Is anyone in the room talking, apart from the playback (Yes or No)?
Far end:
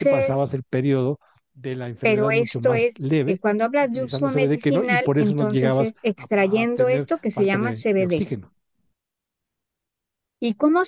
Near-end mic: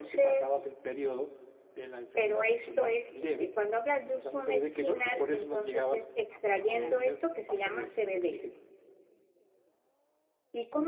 Yes